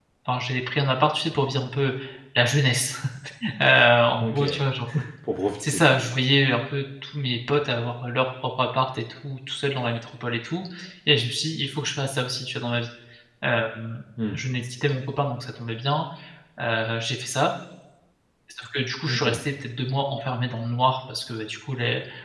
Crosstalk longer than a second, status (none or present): none